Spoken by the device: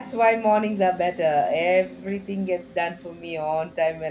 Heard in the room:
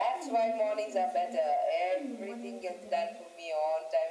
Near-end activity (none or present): present